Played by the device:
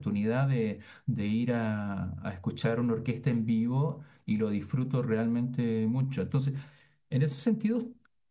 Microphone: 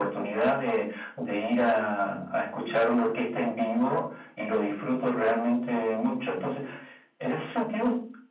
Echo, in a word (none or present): present